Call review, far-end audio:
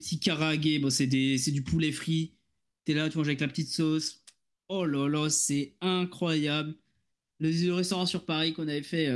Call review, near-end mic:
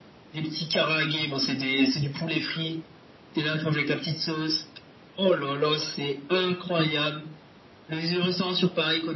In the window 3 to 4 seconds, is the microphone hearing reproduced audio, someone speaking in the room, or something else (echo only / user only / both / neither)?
echo only